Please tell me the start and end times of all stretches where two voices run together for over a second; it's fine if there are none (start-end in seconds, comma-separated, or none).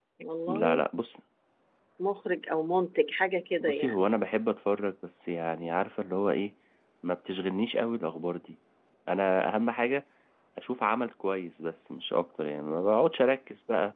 none